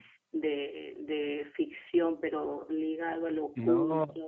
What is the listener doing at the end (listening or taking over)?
taking over